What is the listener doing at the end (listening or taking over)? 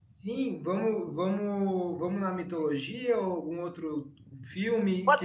taking over